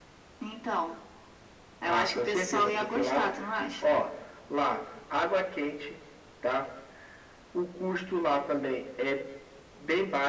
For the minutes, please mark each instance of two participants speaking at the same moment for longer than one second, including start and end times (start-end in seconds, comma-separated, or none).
1.8-3.3